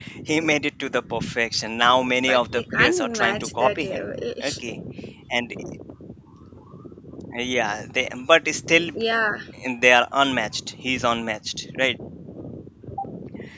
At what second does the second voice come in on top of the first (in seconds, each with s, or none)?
2.2 s